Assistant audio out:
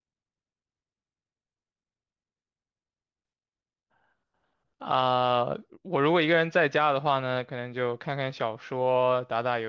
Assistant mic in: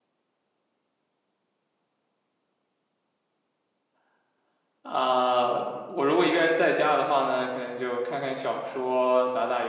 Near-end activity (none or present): none